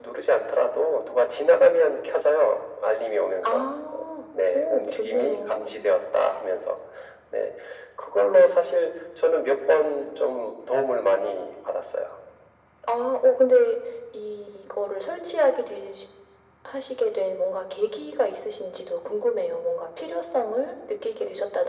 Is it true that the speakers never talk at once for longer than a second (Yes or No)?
No